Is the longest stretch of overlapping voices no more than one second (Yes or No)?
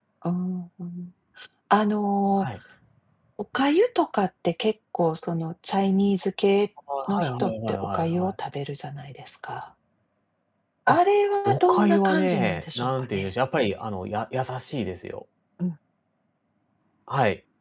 No